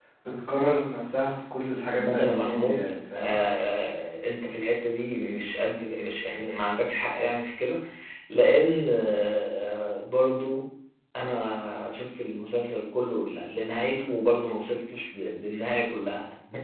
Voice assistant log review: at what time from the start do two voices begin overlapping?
2.0 s

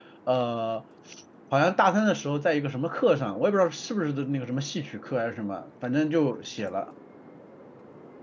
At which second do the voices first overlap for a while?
none

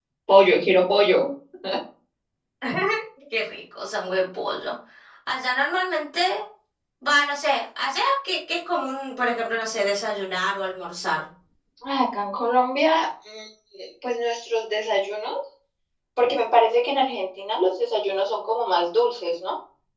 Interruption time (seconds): none

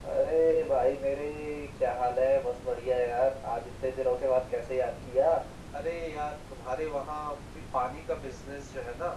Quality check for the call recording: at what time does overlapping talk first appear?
none

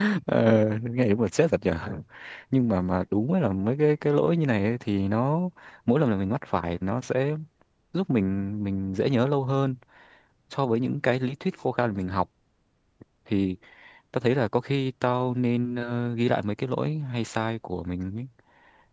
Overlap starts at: none

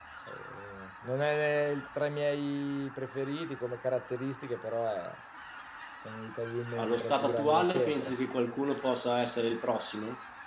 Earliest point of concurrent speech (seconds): 6.8 s

